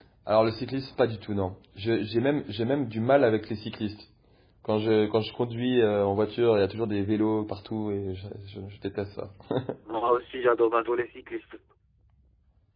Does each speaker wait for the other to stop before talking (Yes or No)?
Yes